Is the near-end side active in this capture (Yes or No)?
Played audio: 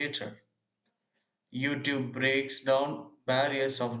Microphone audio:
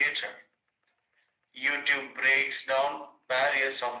No